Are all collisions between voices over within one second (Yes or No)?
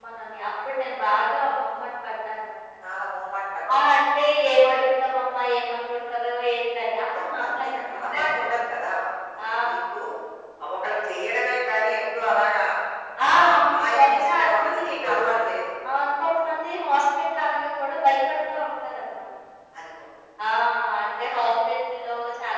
No